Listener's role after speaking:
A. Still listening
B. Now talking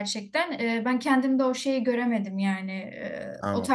A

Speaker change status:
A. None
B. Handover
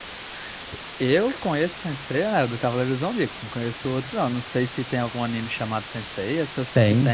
B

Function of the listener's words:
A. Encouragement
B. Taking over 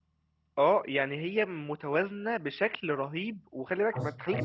B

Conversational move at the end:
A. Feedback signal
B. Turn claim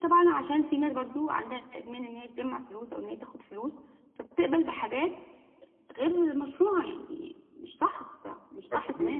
B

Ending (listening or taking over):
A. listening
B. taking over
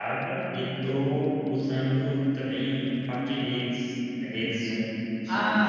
B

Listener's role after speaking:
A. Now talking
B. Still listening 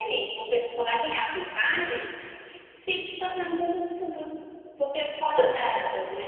B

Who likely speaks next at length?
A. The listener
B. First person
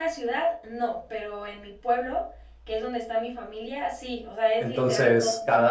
A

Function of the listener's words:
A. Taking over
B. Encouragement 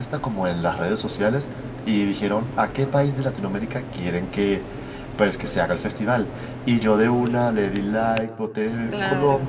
B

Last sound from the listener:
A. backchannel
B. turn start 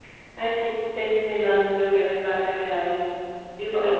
B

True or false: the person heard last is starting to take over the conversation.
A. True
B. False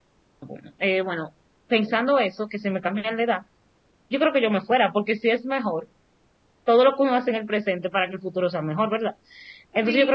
A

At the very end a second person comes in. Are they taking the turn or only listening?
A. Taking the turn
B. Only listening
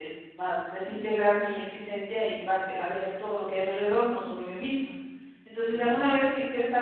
B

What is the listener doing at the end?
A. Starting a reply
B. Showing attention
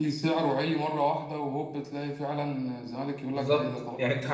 A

